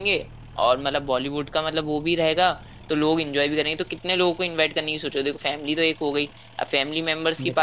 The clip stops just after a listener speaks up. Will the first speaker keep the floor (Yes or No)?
Yes